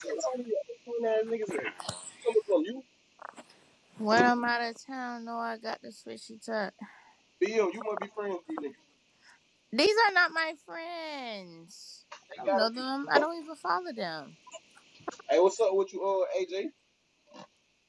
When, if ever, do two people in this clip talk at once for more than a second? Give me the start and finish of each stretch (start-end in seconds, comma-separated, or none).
none